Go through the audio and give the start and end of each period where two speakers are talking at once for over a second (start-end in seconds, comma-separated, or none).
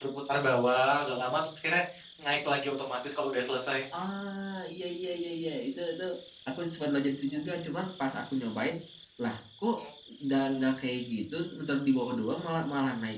none